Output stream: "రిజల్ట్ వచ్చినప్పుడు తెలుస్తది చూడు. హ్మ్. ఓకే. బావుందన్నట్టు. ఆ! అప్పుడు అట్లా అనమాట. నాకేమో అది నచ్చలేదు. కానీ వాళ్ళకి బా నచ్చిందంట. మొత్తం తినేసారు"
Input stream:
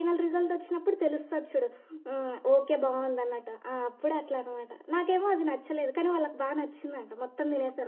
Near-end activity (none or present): none